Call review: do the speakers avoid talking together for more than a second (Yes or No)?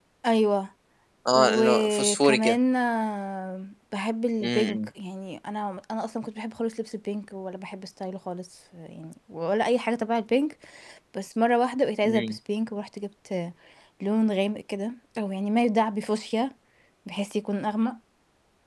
No